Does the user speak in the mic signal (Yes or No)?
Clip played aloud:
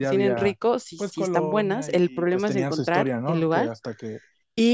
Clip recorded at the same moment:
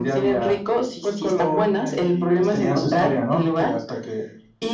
No